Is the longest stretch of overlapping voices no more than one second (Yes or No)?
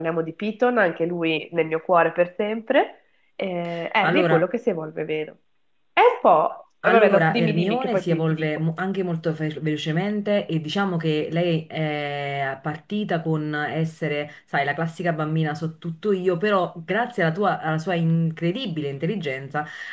No